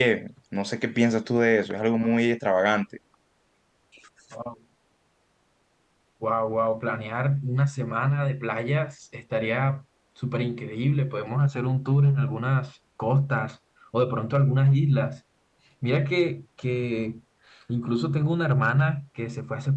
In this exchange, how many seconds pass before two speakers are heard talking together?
none

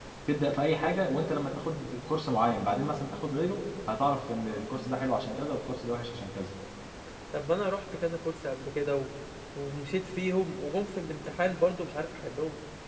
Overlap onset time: none

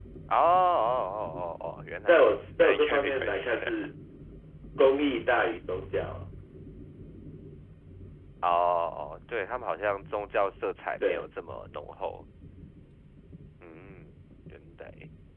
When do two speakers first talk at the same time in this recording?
2.0 s

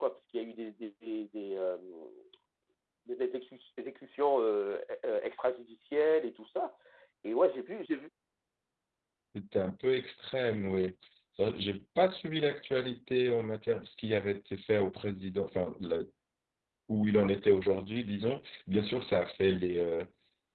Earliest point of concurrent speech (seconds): none

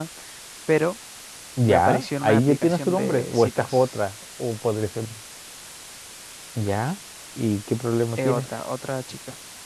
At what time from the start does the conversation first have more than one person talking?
1.6 s

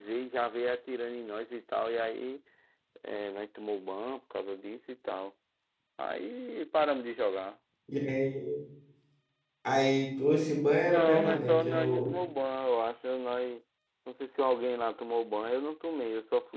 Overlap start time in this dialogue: 10.8 s

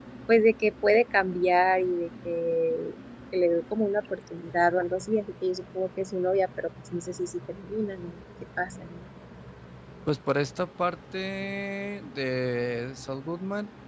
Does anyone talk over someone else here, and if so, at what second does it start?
none

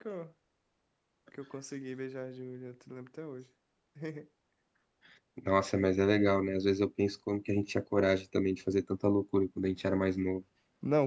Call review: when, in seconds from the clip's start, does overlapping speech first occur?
none

